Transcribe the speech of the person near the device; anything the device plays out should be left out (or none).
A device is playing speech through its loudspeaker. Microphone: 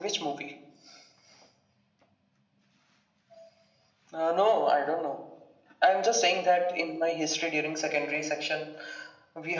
none